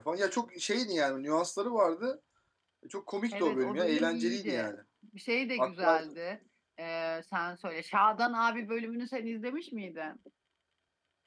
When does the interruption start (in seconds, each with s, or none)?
3.3 s